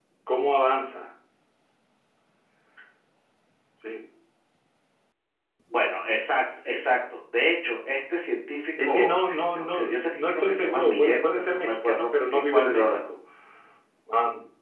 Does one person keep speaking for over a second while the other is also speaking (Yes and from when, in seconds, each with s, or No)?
Yes, from 8.8 s